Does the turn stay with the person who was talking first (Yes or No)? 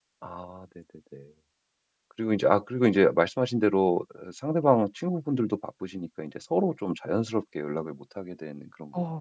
No